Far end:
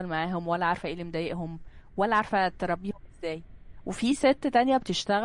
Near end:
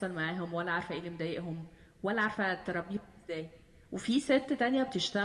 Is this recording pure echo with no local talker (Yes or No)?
Yes